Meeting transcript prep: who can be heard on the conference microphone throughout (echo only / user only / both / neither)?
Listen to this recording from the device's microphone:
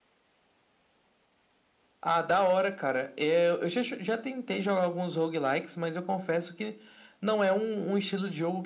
echo only